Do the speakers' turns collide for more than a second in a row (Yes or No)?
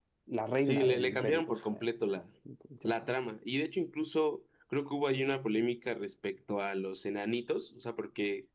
Yes